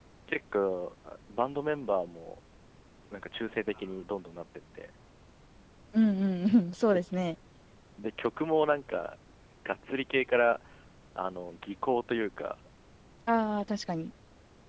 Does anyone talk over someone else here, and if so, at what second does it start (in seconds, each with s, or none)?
none